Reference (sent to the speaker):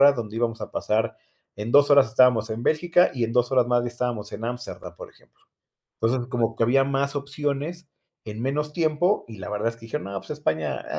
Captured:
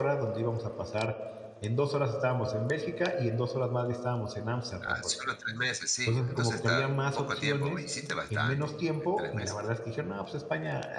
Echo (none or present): present